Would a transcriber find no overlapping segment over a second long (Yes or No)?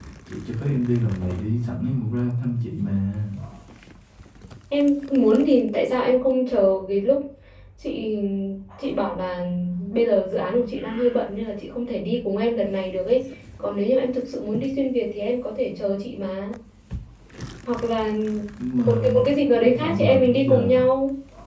No